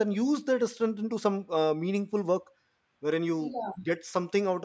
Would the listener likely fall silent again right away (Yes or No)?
Yes